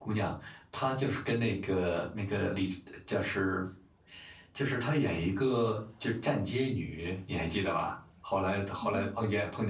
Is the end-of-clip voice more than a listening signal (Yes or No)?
No